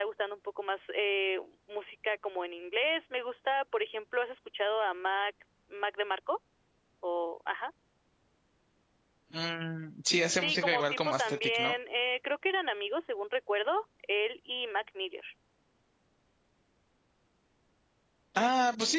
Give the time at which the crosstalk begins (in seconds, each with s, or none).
10.4 s